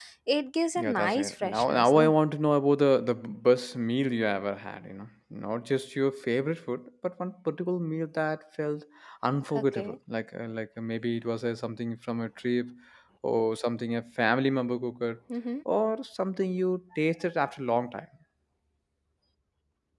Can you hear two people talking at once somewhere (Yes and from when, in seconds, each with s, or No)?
Yes, from 0.8 s